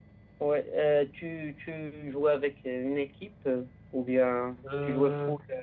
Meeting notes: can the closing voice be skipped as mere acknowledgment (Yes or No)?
Yes